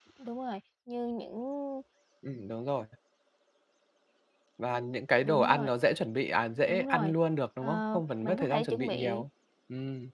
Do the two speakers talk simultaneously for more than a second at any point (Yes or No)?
Yes